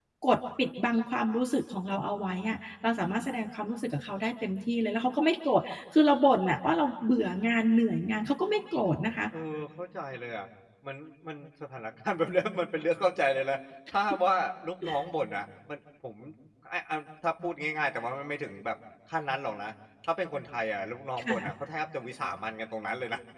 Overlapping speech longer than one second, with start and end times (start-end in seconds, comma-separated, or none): none